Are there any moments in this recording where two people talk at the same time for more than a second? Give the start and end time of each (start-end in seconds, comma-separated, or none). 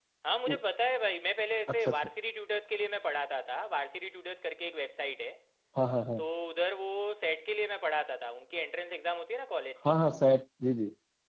none